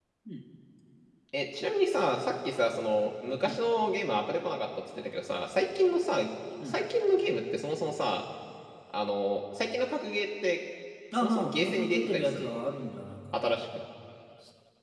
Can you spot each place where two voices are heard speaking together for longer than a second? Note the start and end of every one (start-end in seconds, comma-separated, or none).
11.1-12.6